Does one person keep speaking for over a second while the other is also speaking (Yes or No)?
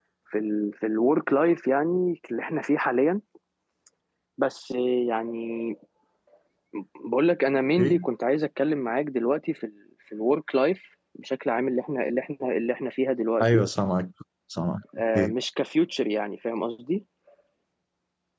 No